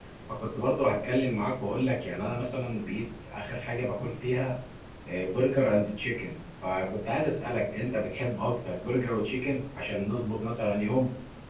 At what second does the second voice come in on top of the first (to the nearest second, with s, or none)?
none